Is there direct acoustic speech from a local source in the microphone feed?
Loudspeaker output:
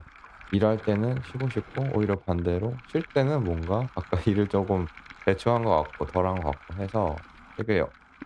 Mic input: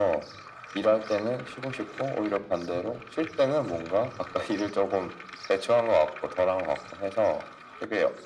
No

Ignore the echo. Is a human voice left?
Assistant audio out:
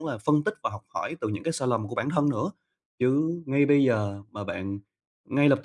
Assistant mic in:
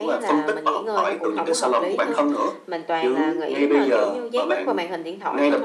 Yes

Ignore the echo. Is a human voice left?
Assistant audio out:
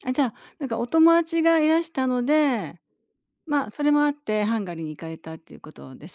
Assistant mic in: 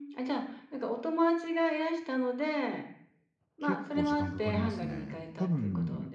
Yes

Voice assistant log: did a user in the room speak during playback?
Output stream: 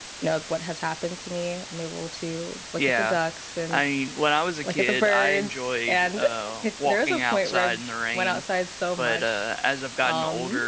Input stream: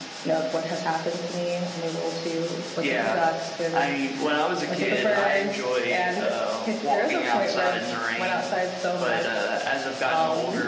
No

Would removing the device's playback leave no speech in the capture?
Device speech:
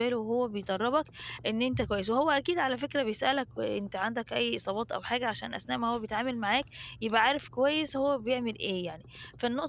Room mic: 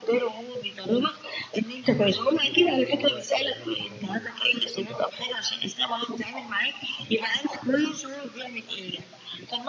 No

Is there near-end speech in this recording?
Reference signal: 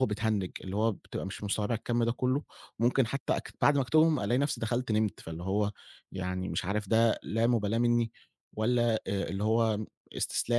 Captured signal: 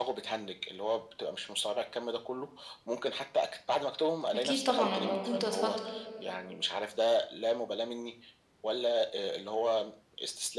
Yes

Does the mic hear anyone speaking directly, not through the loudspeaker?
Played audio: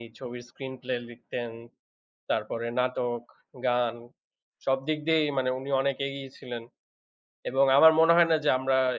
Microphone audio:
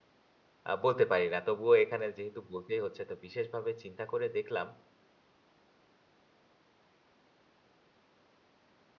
Yes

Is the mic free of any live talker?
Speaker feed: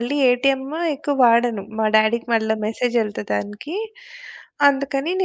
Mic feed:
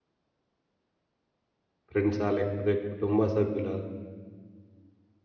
No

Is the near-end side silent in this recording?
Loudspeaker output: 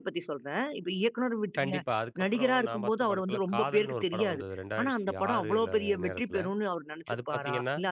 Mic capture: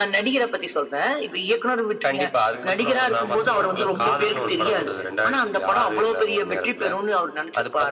No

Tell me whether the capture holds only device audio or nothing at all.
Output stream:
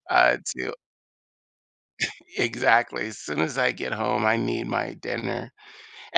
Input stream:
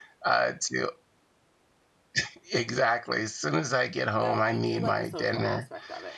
No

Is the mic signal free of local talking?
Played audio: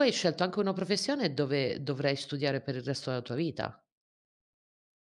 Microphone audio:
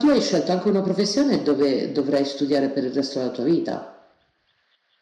Yes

